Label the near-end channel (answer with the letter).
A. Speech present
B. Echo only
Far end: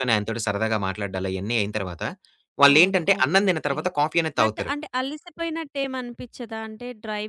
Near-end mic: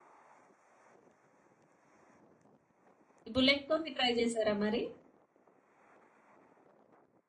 A